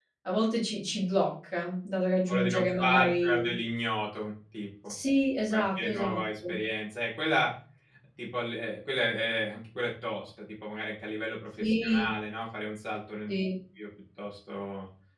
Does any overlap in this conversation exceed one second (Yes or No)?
Yes